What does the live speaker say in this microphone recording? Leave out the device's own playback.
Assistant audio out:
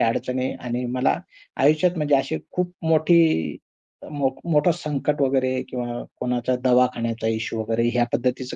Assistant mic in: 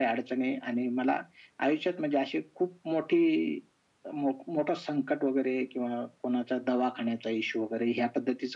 none

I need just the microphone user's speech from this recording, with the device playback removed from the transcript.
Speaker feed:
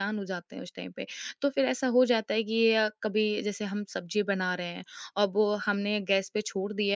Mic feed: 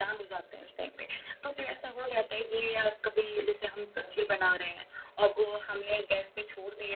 none

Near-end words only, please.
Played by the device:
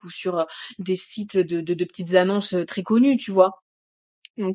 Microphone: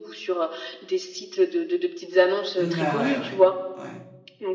bah, ouais, ouais, ouais.

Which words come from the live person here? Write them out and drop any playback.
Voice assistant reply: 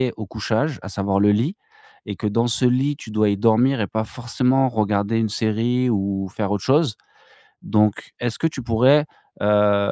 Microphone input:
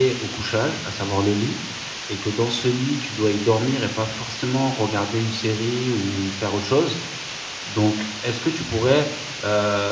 none

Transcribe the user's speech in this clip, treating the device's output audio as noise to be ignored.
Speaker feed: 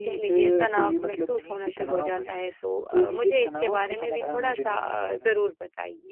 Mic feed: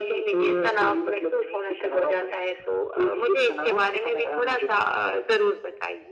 none

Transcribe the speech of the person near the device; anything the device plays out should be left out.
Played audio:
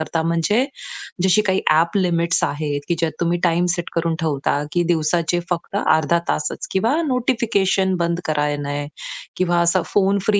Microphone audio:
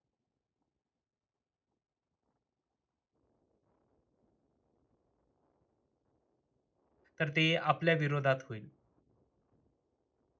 तर ते आपल्या विरोधात होईल.

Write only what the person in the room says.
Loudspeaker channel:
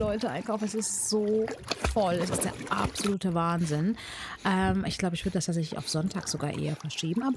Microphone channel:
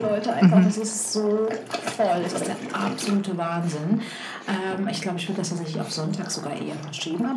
Mhm.

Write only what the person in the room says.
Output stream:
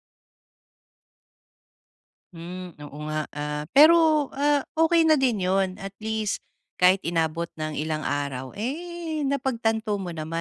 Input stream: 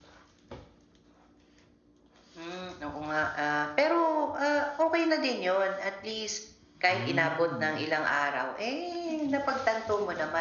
Hmm.

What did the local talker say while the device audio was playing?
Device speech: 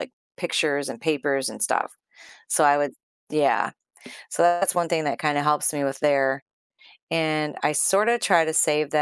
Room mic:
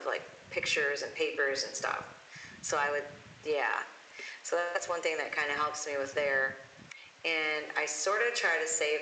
none

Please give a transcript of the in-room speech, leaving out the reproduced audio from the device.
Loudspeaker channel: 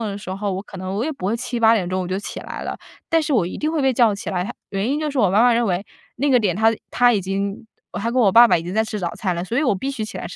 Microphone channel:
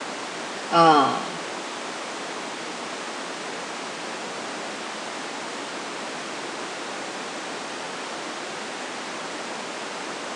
啊，

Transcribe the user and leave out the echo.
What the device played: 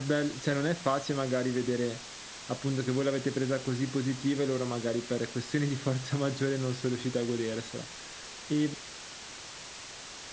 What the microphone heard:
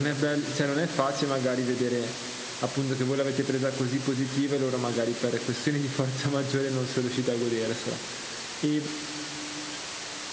none

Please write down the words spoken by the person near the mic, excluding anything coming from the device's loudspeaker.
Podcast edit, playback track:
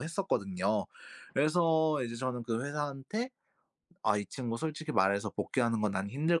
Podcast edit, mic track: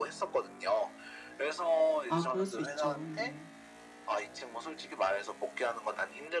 아 그럴 수 있죠. 네.

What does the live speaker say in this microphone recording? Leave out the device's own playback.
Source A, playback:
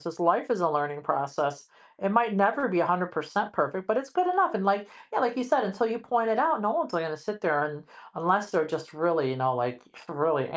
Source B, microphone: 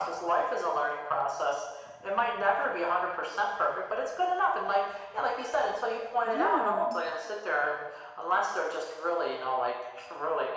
Yeah.

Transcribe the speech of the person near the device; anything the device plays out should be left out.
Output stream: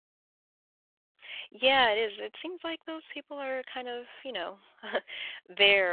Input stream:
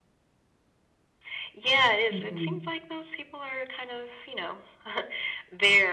hmm

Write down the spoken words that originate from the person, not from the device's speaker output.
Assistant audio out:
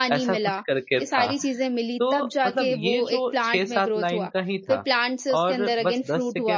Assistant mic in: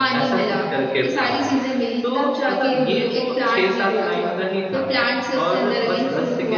हुँ।

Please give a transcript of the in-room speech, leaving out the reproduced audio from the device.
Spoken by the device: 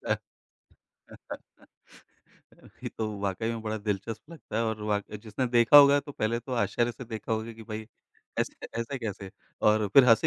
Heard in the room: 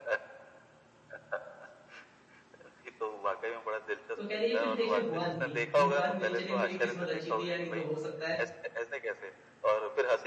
तो कह लीजिए कुछ देखिए हुआ नहीं, ये बात मेरी चलिए मेरी किस्मत अच्छी थी या नहीं तो हो सकता है

